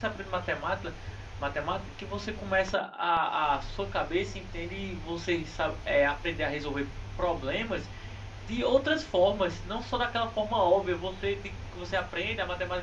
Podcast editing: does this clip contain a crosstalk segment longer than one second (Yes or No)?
No